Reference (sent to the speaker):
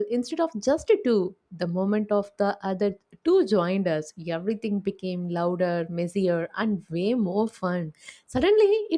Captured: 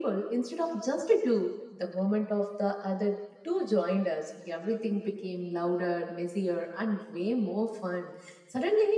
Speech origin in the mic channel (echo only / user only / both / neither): echo only